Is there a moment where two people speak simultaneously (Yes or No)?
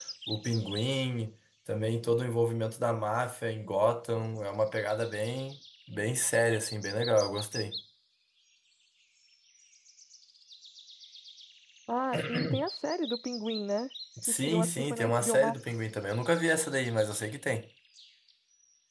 Yes